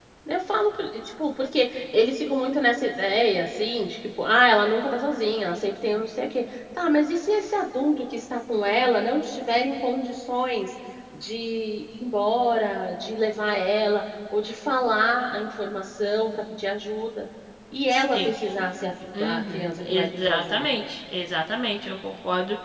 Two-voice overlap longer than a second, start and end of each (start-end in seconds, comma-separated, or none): 19.2-20.7